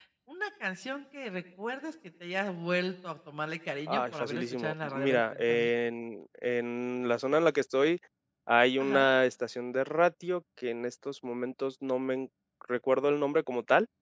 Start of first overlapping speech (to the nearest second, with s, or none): 4 s